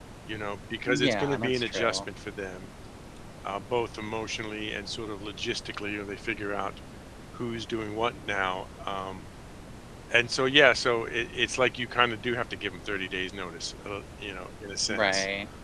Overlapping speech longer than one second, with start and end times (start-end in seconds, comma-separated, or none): 0.9-2.1